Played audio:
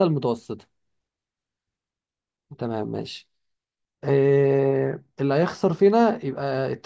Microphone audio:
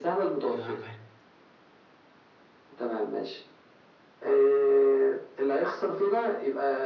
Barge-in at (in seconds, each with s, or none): 0.5 s